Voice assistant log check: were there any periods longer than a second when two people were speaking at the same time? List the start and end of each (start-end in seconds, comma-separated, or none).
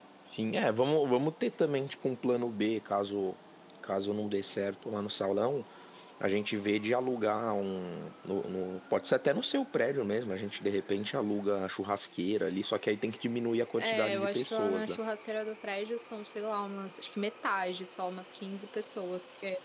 13.8-15.0